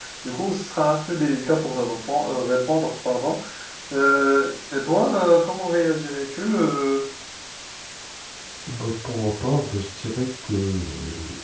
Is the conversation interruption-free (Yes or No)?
Yes